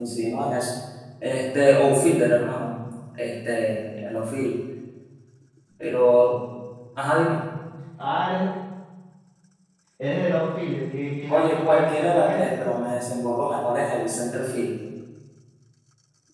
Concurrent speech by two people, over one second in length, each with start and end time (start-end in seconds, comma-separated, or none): 11.3-12.6